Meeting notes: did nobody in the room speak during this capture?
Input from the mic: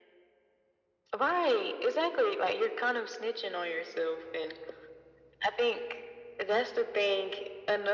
Yes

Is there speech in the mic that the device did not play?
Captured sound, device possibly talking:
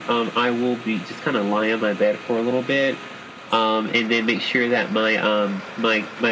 No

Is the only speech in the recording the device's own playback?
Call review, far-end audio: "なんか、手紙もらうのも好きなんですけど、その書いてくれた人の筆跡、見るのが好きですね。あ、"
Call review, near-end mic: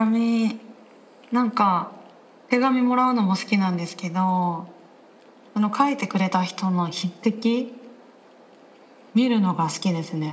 Yes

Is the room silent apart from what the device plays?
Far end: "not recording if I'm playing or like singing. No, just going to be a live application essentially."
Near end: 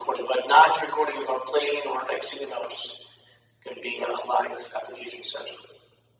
Yes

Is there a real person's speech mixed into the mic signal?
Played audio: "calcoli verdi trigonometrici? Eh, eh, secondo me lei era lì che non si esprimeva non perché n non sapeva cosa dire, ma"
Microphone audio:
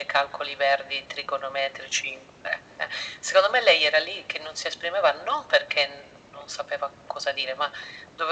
No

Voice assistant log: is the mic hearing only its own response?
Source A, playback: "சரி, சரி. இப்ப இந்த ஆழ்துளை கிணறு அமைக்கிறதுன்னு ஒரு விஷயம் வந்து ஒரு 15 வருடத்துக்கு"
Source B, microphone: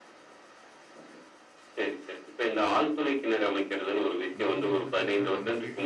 No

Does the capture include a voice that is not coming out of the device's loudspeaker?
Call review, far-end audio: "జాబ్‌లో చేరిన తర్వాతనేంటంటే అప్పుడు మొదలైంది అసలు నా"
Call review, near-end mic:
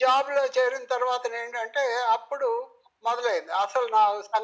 No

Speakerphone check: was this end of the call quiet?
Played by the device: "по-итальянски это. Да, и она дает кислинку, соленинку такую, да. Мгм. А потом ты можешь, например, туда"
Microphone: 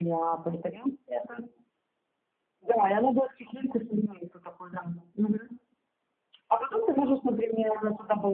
Yes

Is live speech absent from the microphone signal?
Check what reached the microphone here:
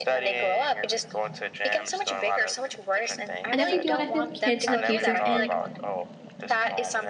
No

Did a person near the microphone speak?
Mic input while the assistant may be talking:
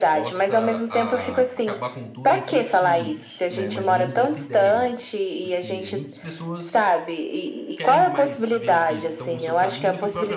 Yes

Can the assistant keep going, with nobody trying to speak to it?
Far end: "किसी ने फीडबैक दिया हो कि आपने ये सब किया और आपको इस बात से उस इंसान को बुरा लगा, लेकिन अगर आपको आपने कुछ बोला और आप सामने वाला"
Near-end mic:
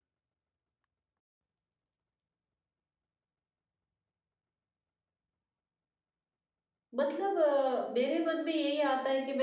No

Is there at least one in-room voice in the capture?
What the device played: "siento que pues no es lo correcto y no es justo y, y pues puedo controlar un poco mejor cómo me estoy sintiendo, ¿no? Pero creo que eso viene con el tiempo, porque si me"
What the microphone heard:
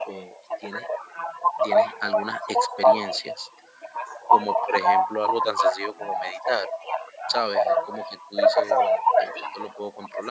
Yes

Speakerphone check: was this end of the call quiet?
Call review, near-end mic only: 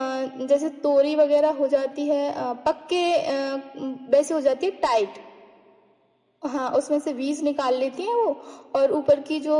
Yes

